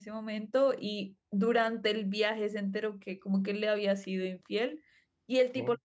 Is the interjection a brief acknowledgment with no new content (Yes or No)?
Yes